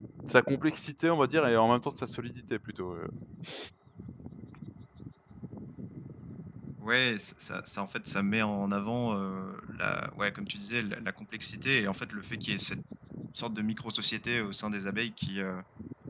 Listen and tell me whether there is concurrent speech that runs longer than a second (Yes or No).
No